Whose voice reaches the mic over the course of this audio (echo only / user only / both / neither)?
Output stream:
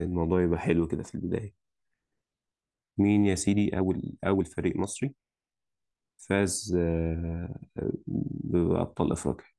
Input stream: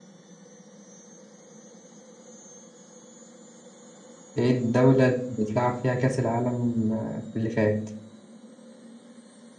user only